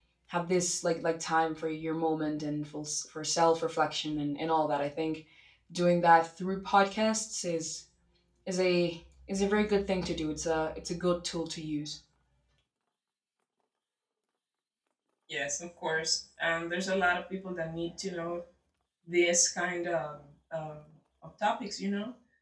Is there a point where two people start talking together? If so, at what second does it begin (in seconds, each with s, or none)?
none